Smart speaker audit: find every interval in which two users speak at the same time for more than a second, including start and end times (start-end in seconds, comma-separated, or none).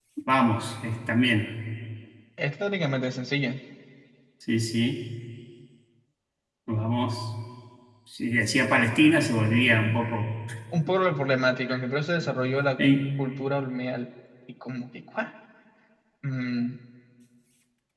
none